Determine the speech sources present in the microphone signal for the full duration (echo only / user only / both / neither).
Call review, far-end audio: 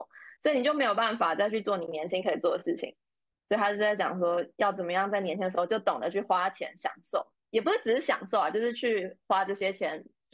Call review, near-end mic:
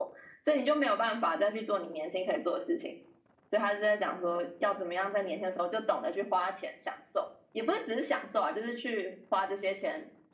echo only